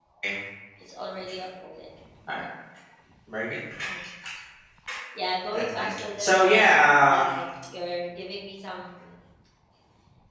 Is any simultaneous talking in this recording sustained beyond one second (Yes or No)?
Yes